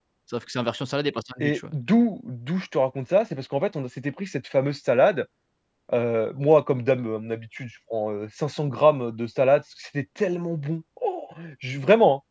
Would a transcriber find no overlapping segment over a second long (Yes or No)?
Yes